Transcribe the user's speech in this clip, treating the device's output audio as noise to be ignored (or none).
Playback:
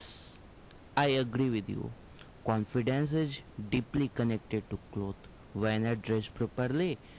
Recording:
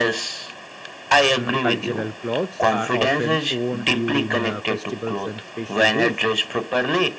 Mm, cultural clothes are often worn during uh, festivals and special days